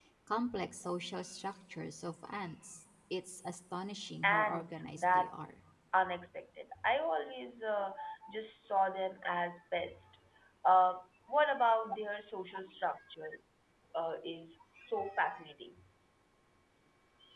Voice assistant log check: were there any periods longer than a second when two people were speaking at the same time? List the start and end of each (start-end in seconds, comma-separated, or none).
4.2-5.5